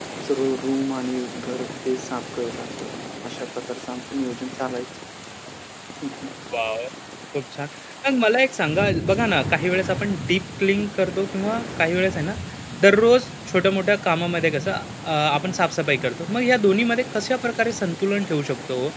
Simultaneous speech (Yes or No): No